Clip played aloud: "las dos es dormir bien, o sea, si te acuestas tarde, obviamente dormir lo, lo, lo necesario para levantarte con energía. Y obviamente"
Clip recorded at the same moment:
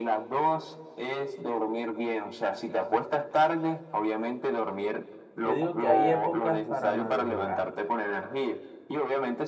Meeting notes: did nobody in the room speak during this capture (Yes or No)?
No